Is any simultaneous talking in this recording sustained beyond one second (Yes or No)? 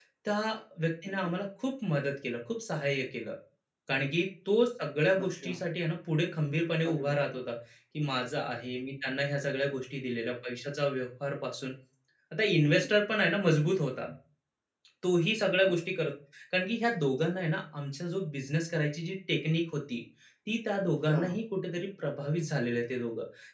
No